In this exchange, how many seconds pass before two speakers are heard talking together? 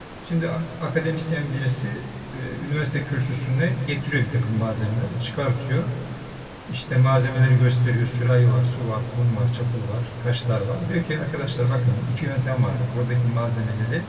none

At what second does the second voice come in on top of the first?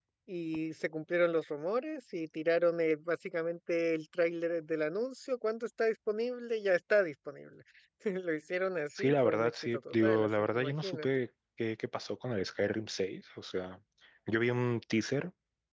9.0 s

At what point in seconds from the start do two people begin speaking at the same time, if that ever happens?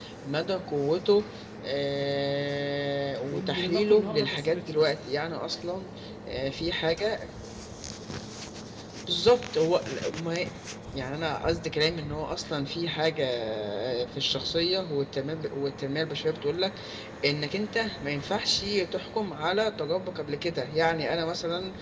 3.2 s

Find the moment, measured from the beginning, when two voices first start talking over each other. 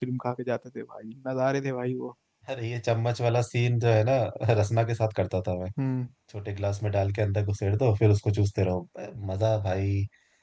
none

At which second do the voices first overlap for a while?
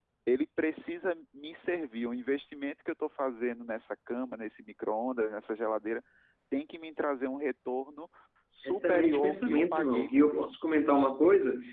8.6 s

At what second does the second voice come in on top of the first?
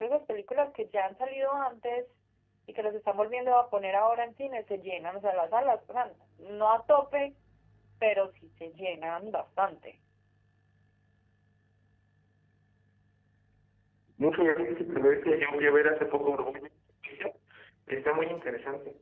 none

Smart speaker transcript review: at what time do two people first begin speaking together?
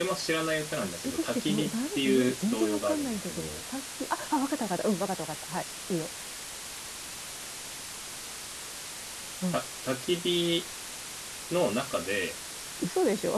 0.8 s

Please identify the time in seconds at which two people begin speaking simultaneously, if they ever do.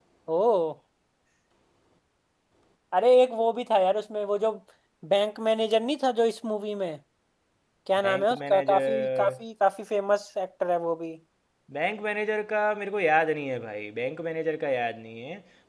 8.0 s

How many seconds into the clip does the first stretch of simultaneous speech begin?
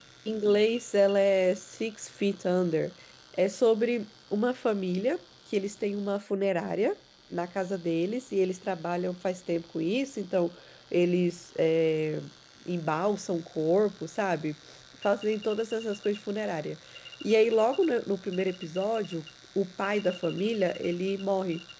none

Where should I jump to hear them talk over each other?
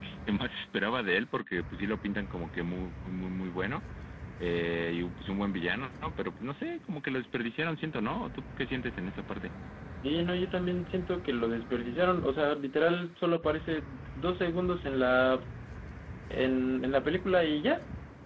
none

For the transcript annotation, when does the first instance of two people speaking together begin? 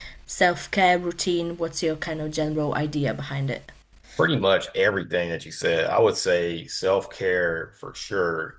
none

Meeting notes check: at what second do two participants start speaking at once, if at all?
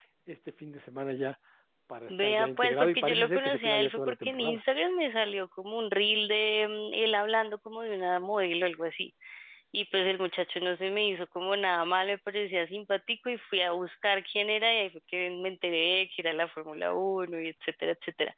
2.1 s

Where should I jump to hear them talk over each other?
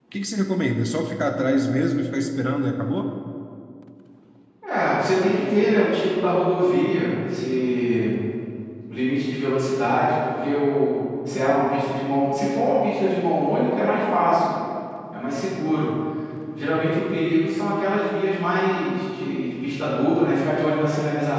none

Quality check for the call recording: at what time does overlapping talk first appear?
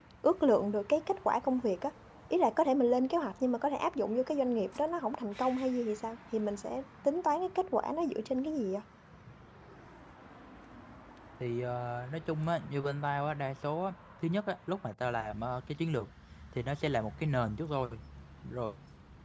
none

